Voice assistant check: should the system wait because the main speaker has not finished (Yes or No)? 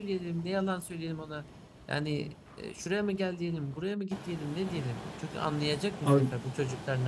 Yes